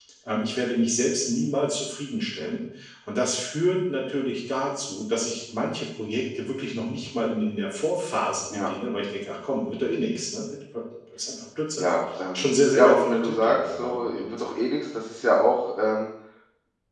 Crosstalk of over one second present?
Yes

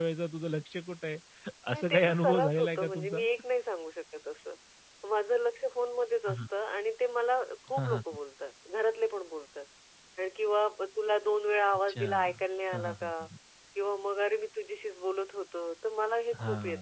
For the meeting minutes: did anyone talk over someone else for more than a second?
Yes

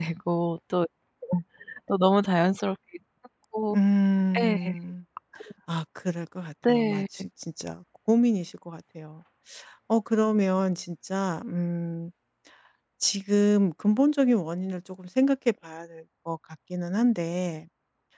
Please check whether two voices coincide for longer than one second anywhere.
No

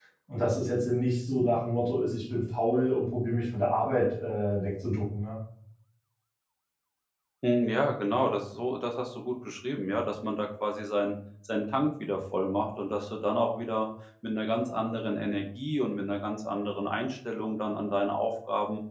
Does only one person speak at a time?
Yes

